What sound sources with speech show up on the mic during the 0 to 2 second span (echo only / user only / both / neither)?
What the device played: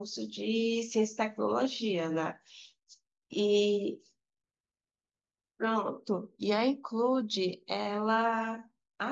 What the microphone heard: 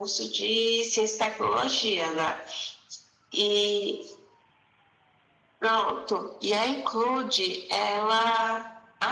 echo only